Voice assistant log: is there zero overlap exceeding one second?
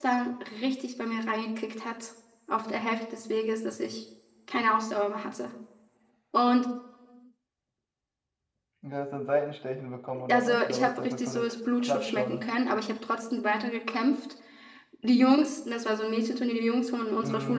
No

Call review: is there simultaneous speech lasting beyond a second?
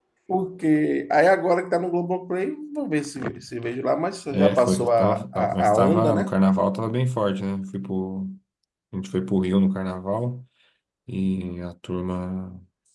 Yes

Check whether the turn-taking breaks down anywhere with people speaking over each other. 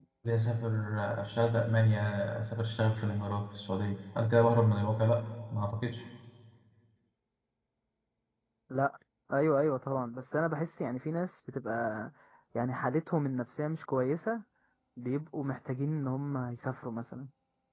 No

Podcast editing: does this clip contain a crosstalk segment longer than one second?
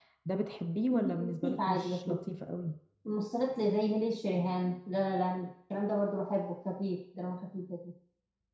Yes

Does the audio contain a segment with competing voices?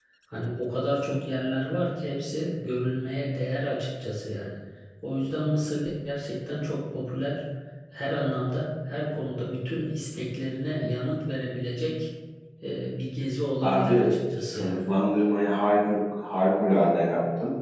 Yes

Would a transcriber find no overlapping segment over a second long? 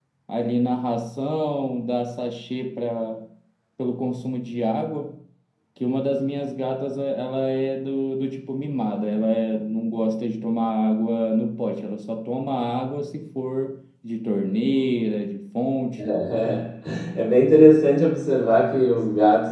Yes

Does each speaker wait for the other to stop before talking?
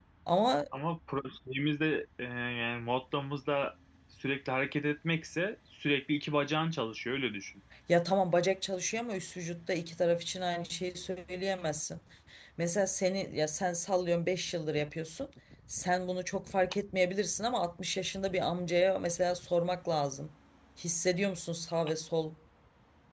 Yes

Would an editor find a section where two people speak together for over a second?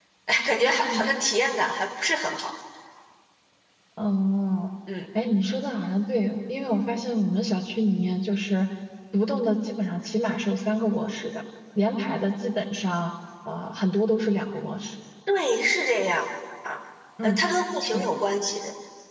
No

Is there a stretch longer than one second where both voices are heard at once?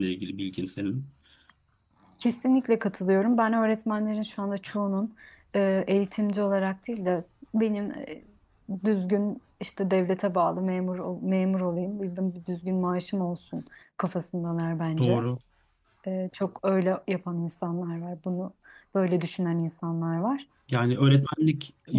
No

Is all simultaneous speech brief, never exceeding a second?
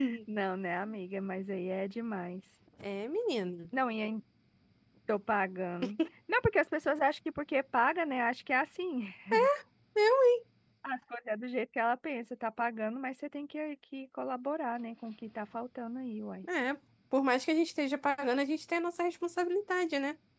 Yes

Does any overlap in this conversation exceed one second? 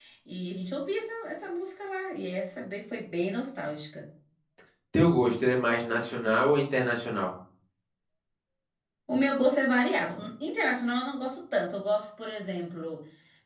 No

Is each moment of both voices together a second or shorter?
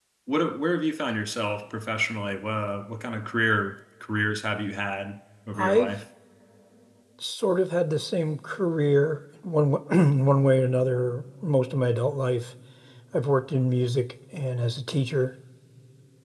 Yes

